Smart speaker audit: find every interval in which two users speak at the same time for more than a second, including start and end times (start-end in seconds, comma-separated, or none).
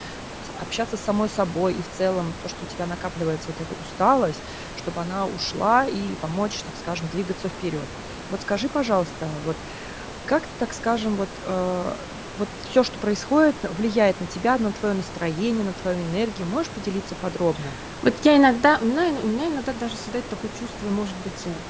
none